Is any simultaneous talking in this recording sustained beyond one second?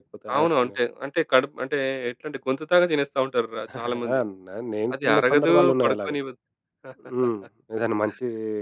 Yes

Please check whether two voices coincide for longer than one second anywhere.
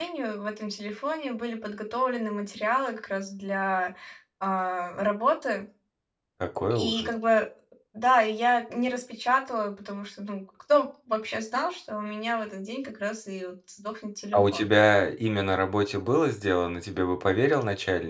No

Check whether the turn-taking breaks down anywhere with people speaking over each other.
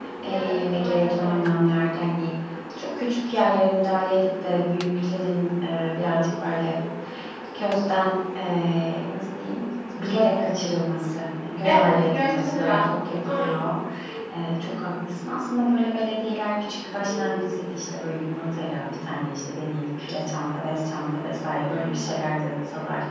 Yes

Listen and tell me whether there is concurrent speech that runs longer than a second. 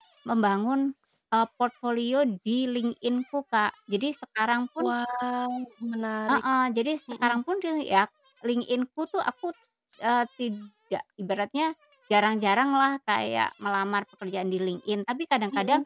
No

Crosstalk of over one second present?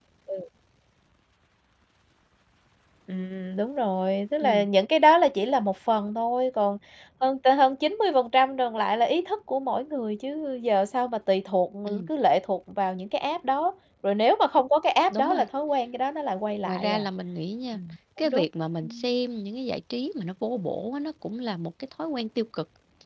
No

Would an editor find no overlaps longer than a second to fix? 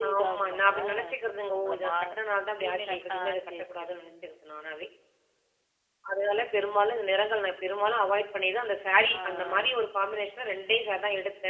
No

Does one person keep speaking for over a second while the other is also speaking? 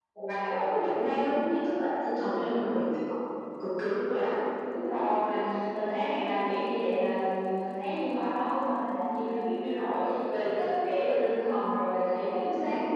No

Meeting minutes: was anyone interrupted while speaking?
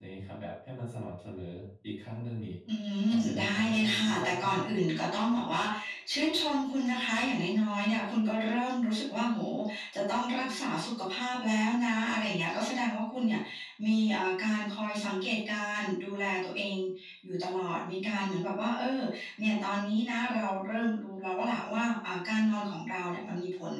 Yes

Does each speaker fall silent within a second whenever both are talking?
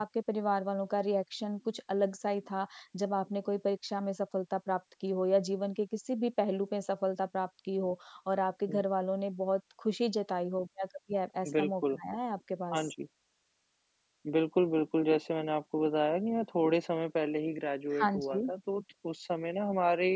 Yes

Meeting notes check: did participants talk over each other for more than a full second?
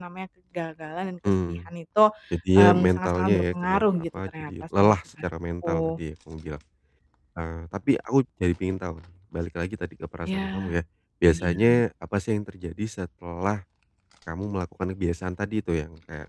Yes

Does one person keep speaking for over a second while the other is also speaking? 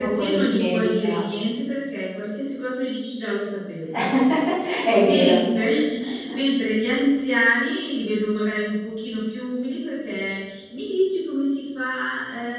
Yes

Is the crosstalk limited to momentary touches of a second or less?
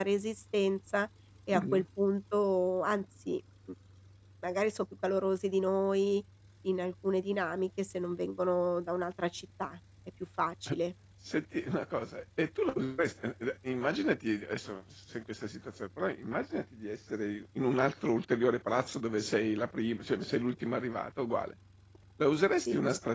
Yes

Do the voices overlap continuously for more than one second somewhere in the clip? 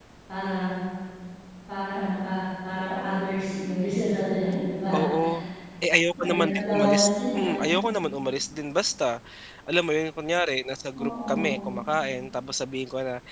Yes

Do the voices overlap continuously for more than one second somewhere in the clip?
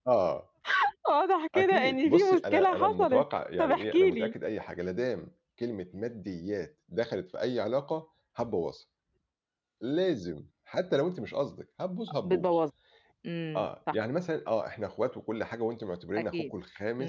Yes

